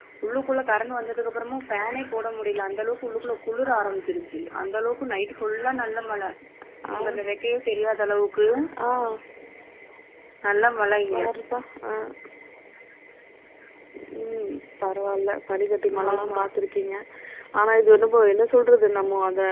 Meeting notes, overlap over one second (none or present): none